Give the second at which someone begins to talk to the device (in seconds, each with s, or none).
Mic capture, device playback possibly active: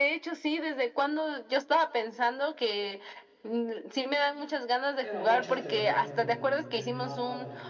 5.0 s